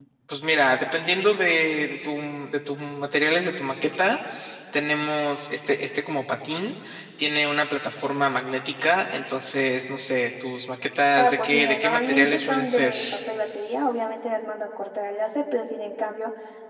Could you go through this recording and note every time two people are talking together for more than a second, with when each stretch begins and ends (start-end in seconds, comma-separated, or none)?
11.2-12.9